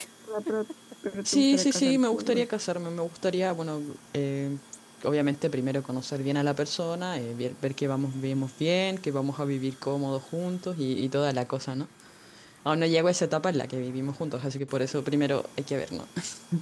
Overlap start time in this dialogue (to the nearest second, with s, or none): 1 s